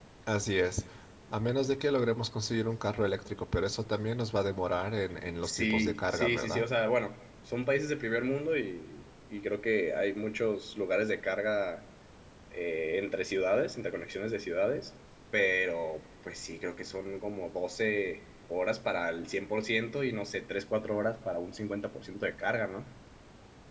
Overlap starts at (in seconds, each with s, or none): 5.4 s